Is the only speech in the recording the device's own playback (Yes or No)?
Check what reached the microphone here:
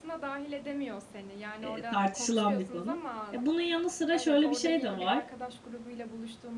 No